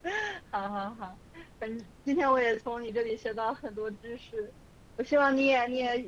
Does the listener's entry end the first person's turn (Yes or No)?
No